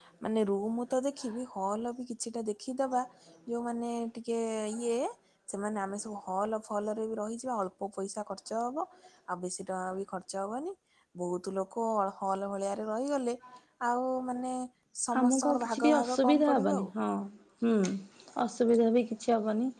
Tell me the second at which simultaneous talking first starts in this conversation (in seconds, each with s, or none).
15.2 s